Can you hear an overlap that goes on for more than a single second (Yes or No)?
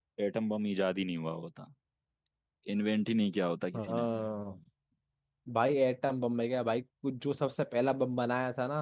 No